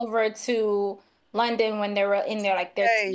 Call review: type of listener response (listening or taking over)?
listening